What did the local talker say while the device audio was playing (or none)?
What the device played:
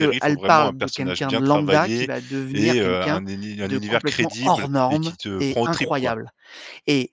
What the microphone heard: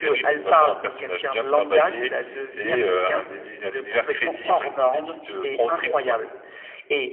none